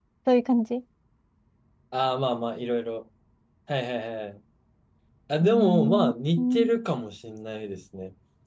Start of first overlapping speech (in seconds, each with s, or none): 5.4 s